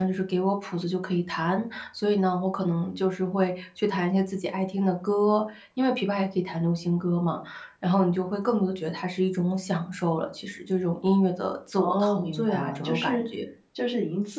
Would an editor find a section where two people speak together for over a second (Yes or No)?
Yes